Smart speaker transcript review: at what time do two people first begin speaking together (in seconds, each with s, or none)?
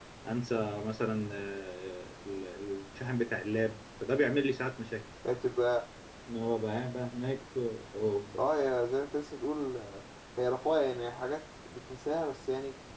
none